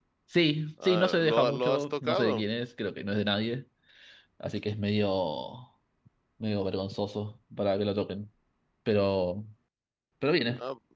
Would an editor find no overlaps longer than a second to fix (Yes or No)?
No